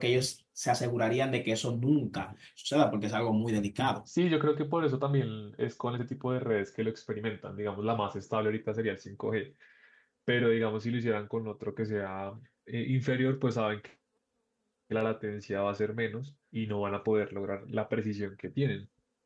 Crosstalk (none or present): none